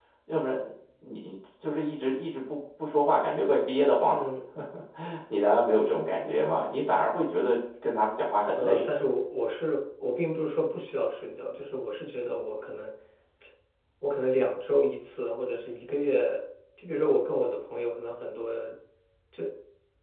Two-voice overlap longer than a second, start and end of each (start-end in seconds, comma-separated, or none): none